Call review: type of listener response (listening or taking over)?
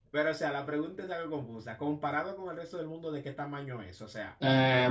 taking over